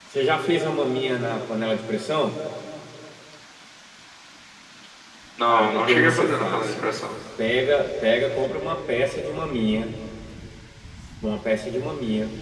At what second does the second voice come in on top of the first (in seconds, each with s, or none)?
5.5 s